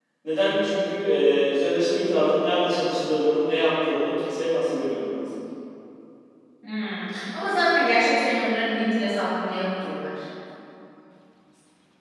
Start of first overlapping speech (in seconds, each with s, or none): none